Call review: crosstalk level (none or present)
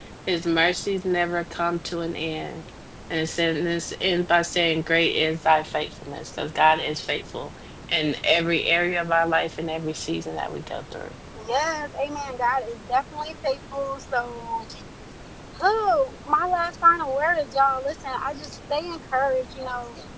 none